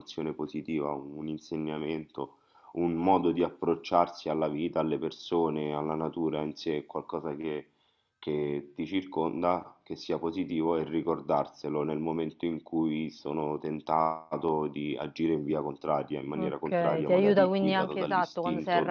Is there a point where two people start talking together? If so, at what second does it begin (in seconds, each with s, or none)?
16.4 s